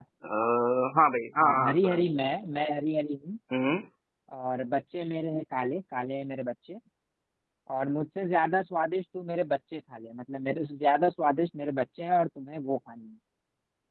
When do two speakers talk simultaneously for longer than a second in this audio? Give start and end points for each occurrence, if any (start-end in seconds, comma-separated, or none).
none